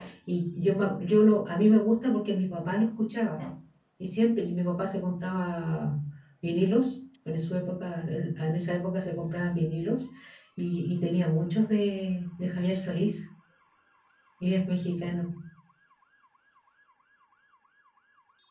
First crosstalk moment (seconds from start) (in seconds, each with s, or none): none